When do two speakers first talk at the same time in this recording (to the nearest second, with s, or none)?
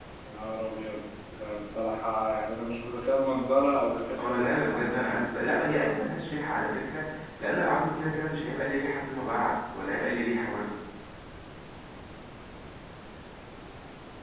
4 s